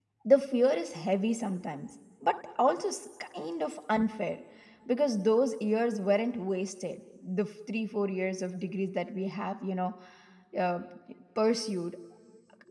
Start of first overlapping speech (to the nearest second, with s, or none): none